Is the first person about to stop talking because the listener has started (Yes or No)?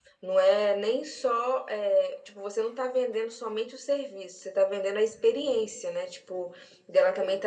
No